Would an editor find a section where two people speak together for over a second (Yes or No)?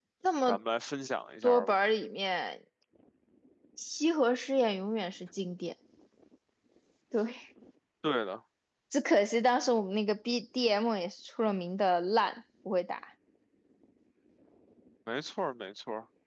No